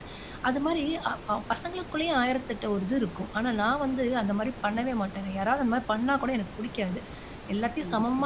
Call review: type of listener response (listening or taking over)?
listening